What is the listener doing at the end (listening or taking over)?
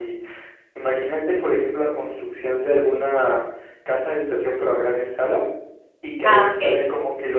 listening